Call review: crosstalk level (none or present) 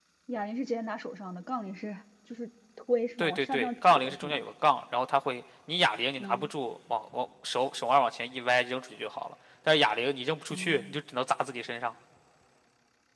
present